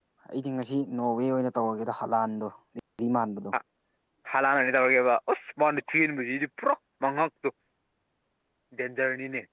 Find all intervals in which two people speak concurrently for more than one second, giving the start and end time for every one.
none

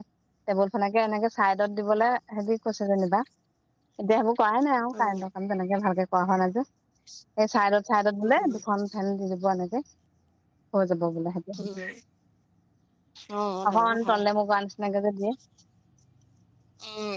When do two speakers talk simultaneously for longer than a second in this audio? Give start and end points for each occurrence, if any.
none

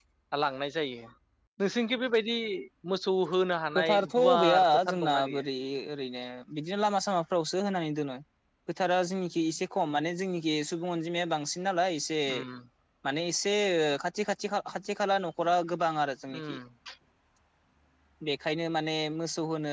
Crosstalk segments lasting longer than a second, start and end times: 3.8-5.4

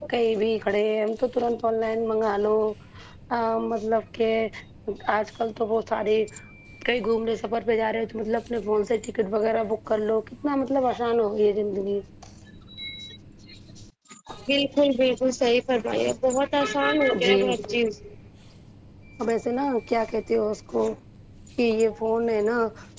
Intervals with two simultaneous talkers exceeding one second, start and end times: none

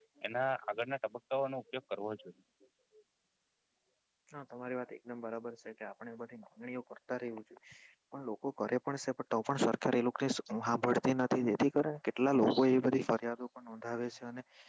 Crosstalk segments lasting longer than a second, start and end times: none

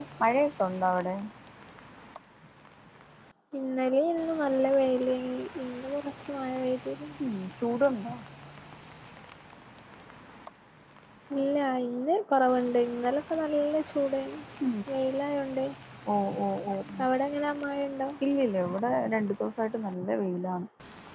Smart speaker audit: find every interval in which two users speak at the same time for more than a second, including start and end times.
none

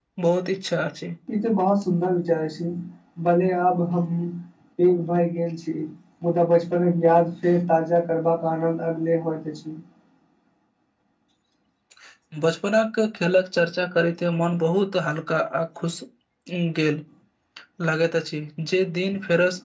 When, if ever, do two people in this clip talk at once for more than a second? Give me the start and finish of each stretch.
none

